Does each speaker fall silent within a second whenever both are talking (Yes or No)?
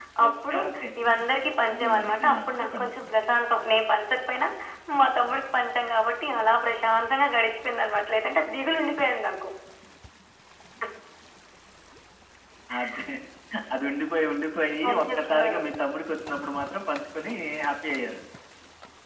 No